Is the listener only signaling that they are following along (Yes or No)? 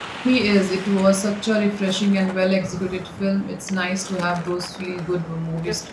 No